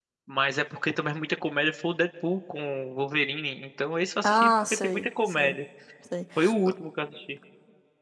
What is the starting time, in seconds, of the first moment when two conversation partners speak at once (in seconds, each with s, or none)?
4.2 s